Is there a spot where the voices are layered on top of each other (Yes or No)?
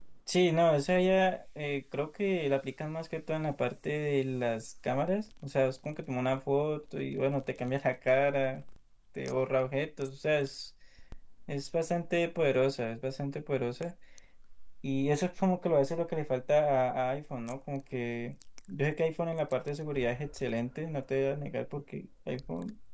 No